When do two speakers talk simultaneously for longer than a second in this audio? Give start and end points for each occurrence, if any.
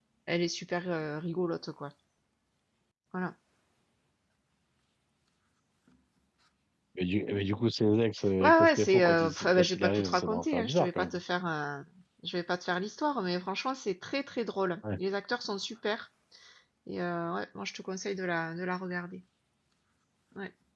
8.4-11.2

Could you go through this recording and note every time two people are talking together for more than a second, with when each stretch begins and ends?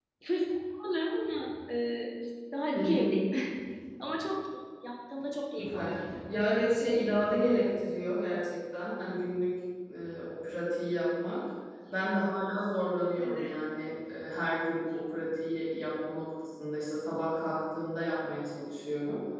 none

